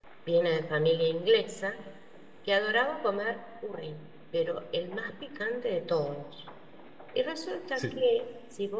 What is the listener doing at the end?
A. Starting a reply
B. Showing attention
B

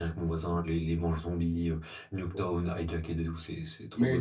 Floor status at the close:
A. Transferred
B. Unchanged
A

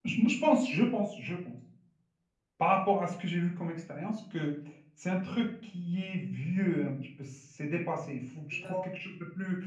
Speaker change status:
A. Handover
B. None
B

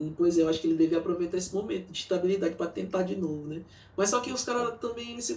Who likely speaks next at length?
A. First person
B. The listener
A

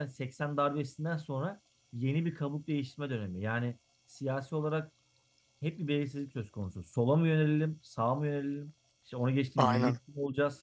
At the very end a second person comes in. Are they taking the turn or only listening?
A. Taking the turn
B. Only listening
B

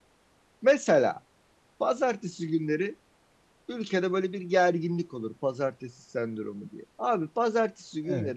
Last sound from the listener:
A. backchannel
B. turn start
A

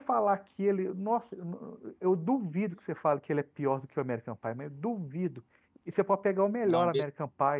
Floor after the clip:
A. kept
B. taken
A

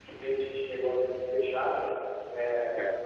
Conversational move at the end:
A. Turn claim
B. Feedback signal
B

